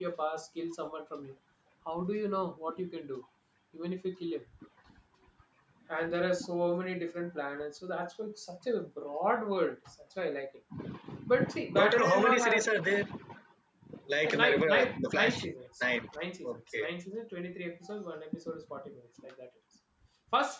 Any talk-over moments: Yes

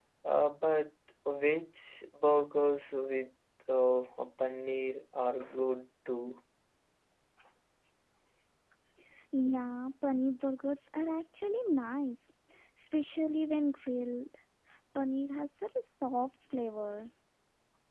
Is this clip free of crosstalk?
Yes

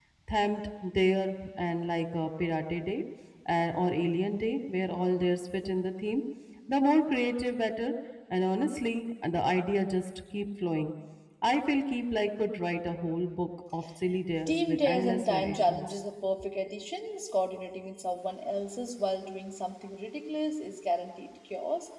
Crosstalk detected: Yes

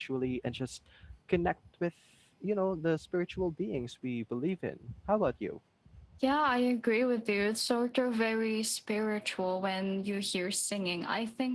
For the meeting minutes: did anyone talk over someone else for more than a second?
No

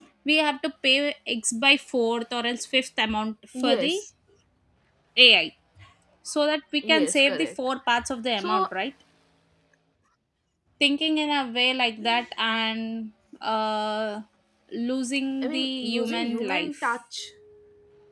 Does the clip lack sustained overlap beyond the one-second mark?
No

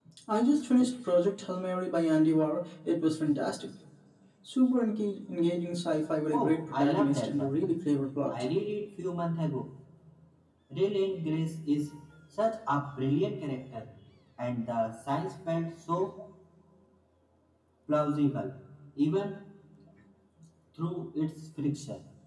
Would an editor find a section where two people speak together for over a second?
Yes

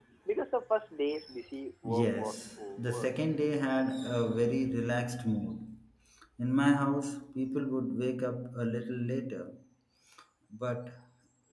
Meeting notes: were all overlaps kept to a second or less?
No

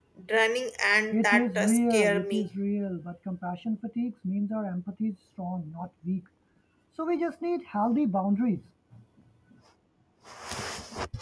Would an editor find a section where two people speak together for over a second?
Yes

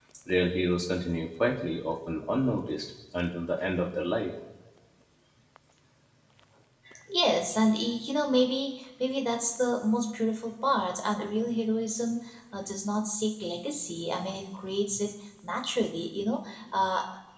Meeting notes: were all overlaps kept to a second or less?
Yes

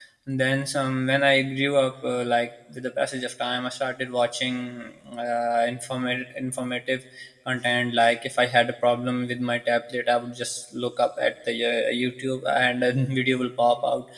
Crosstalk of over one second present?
No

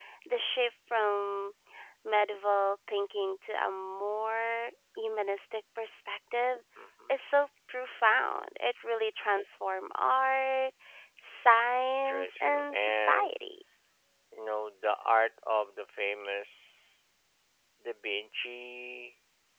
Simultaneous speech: Yes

